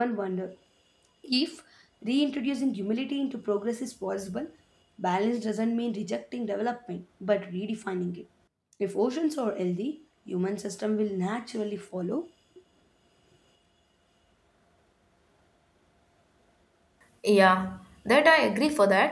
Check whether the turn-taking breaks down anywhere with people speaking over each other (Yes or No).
No